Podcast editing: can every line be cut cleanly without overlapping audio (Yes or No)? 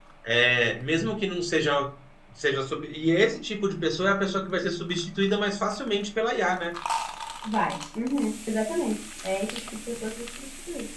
Yes